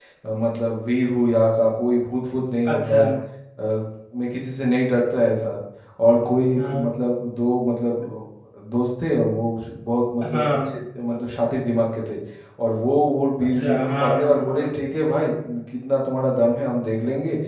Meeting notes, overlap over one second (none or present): present